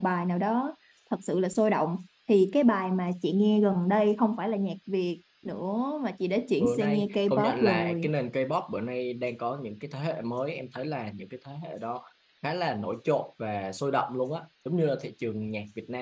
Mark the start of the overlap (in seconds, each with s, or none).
6.6 s